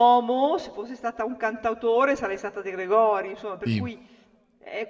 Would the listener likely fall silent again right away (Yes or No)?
Yes